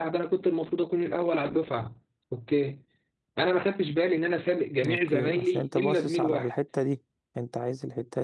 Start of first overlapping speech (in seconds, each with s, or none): 4.8 s